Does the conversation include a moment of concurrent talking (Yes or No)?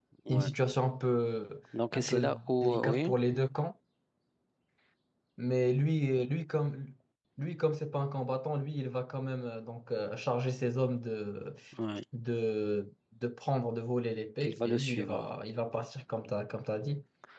Yes